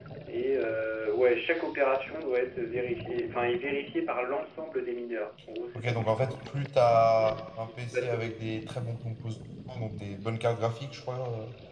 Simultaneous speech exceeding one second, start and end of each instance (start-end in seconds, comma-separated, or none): 7.2-8.4